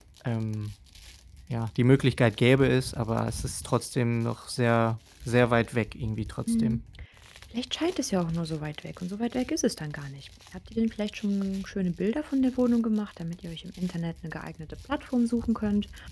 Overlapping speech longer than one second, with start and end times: none

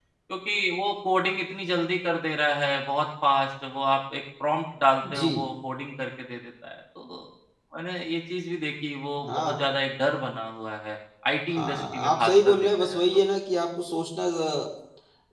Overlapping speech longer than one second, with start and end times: 11.5-13.0

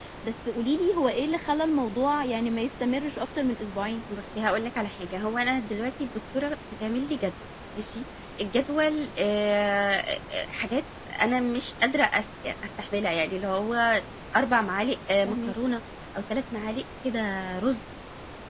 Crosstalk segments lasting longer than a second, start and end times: none

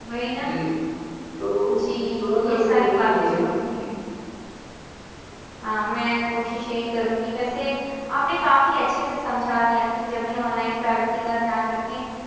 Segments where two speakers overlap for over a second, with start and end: 2.5-3.9

